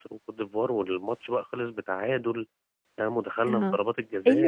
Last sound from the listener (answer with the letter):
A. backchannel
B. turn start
B